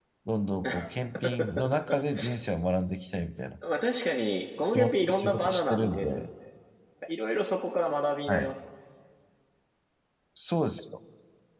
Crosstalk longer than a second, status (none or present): present